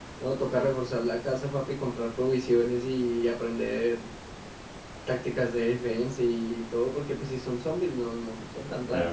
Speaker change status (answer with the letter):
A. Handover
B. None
A